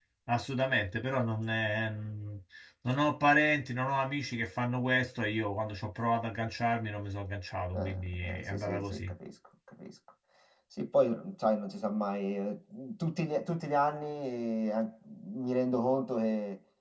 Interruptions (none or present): present